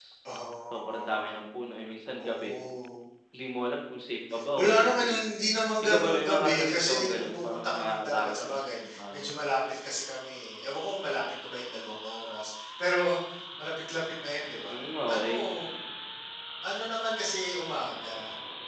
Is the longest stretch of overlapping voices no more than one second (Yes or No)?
No